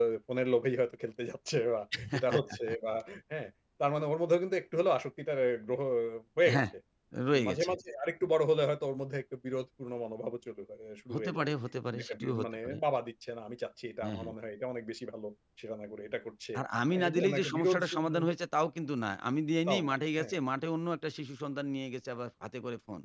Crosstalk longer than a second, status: present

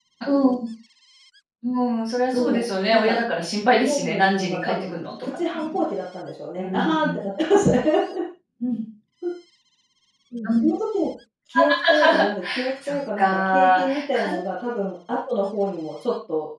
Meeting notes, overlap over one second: present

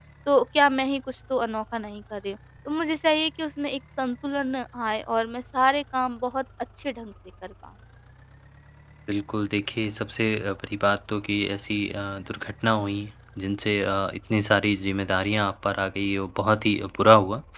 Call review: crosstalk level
none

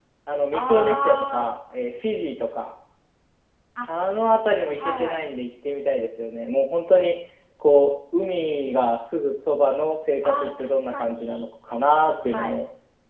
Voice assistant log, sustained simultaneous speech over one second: present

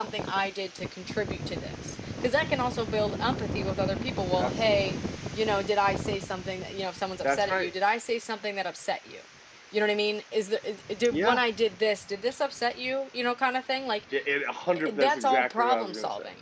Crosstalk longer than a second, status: present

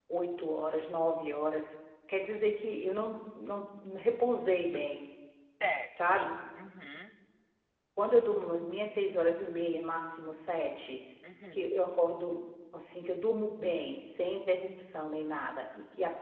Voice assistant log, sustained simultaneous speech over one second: none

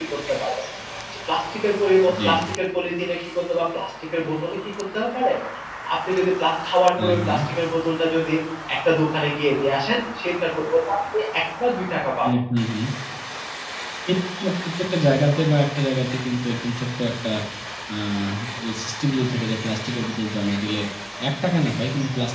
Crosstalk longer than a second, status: none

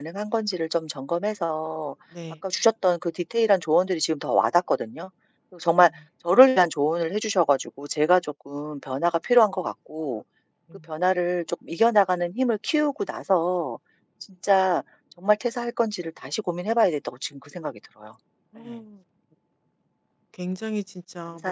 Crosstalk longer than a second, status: none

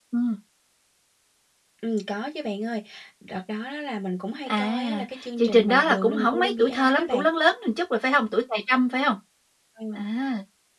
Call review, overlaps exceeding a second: present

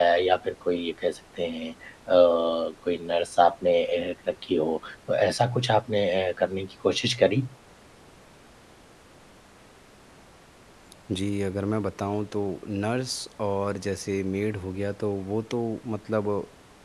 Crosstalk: none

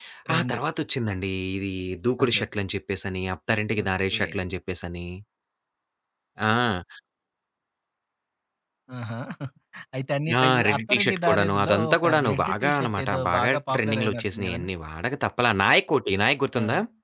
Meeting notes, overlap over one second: present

